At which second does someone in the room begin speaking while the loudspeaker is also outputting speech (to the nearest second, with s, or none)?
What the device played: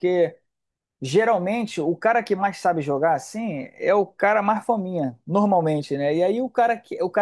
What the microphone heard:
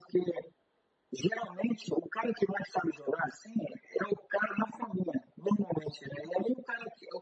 none